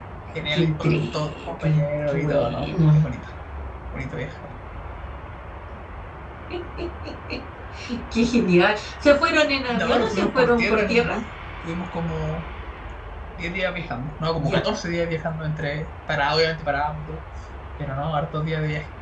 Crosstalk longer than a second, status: present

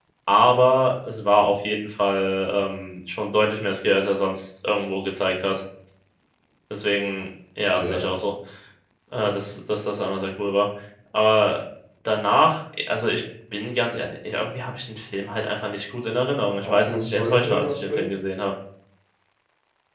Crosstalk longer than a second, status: present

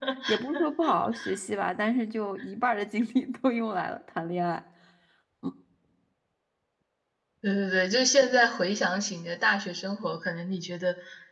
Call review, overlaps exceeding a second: none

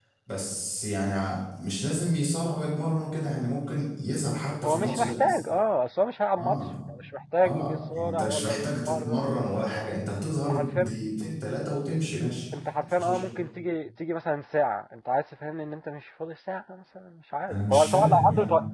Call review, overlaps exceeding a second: present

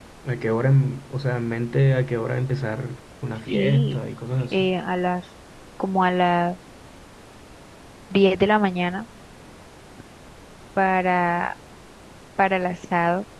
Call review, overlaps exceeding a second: none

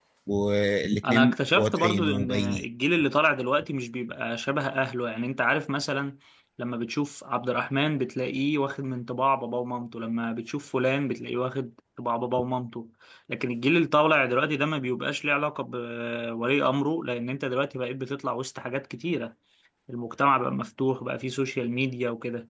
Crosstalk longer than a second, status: present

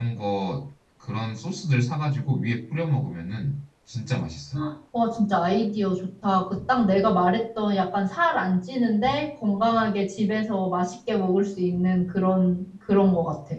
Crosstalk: none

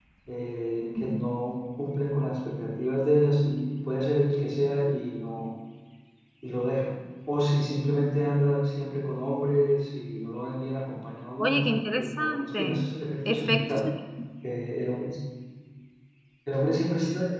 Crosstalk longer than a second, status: present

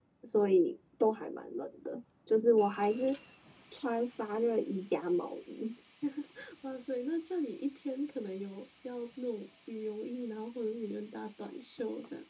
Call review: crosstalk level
none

